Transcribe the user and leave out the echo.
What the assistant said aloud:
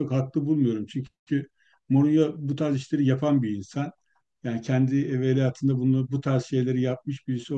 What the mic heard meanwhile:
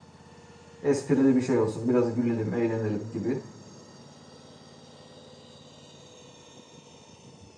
esprili bir şey olsun. Biraz gülelim, eğlenelim gibi

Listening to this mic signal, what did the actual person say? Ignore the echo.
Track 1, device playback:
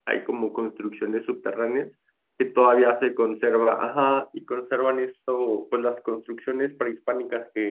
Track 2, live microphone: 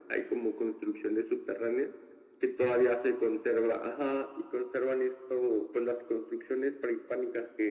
none

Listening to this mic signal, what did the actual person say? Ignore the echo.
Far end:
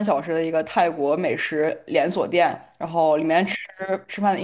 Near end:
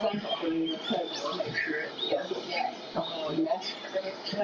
none

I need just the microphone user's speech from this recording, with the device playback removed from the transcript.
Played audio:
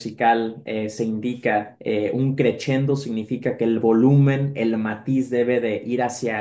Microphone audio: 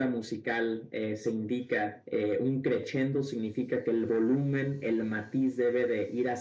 none

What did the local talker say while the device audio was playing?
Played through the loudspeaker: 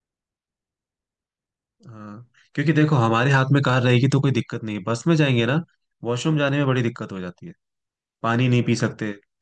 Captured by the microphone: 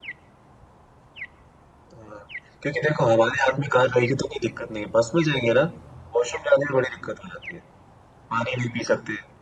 none

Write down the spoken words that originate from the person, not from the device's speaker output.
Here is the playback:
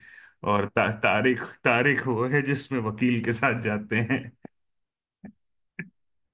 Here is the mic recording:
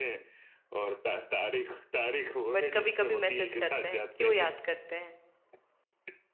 बट कभी कभी मैसेज करते हैं क्यों याद करते हैं

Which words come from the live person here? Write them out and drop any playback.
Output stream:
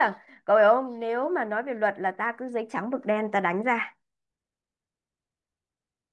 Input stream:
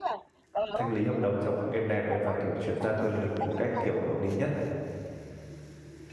thanh lý hợp đồng trong êm đẹp ấy và kiểu chuyển giao quyền lực một cách kiểu hợp lý nhất.

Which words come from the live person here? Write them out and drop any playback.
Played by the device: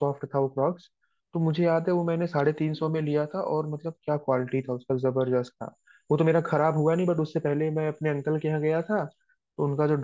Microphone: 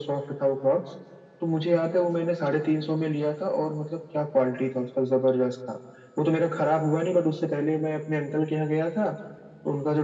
none

